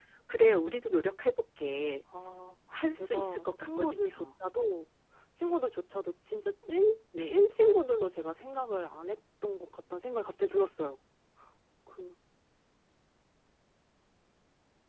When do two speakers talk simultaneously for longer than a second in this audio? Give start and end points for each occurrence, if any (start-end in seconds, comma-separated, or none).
2.7-4.3